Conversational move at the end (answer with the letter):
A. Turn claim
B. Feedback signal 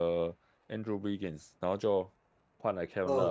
A